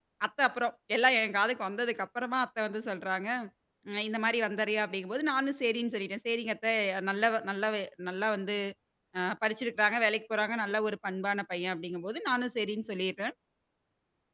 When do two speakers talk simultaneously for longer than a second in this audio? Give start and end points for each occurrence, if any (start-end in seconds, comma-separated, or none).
none